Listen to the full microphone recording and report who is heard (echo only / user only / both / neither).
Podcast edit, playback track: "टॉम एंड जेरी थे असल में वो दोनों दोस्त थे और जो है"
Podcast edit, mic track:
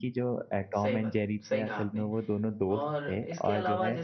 both